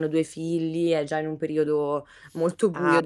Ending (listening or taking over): taking over